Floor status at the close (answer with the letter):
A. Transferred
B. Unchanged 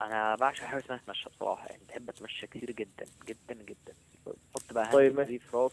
B